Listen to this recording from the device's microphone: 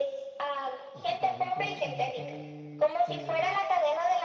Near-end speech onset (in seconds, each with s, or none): 0.9 s